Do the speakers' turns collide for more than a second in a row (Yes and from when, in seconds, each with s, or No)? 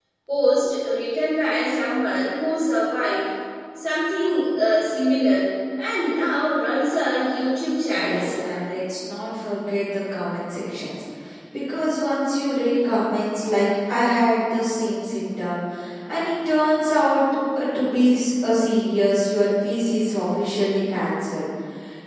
No